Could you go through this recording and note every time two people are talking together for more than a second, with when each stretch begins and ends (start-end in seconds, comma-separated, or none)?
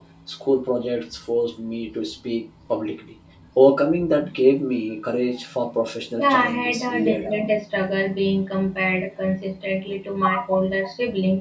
6.2-7.4